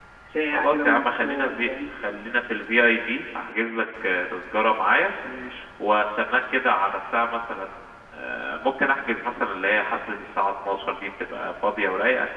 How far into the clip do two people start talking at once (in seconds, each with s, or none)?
0.5 s